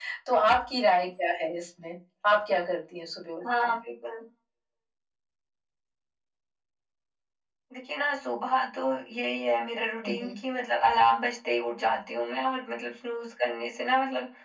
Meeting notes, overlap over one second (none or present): none